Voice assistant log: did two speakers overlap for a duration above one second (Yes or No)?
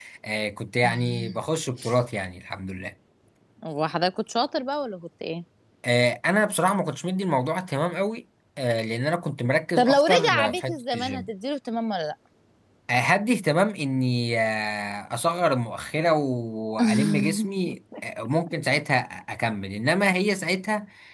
Yes